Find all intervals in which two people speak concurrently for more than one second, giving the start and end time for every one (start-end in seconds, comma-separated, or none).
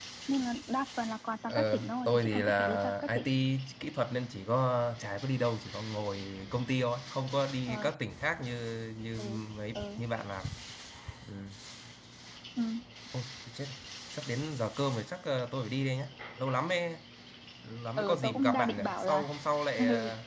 1.5-3.2, 18.0-19.3